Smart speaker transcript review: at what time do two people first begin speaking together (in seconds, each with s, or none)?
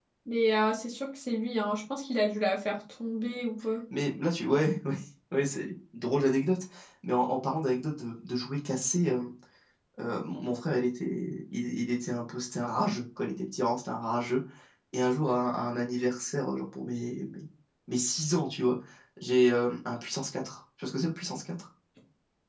none